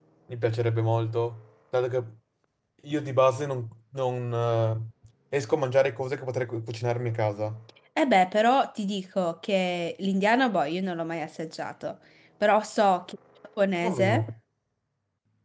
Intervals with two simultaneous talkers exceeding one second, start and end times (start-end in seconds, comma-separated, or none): none